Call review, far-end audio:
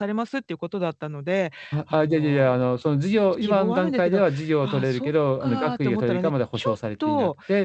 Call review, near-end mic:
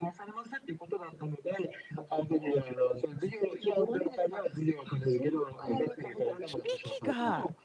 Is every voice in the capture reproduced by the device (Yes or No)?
No